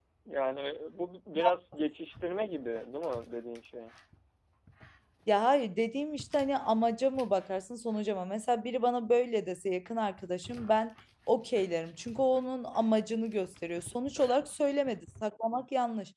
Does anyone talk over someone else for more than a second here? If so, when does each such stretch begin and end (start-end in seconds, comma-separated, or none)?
none